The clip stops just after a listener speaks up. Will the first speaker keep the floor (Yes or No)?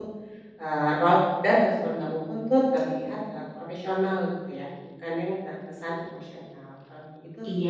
No